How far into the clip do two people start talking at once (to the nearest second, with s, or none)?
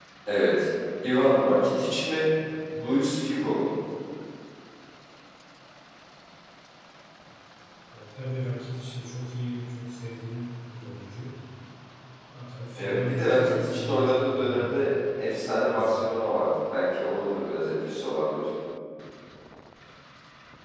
13 s